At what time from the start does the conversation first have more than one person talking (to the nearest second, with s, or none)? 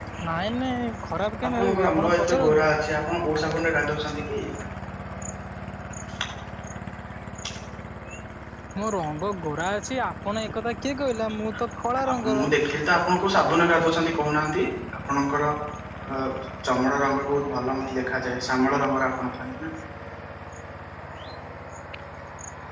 1 s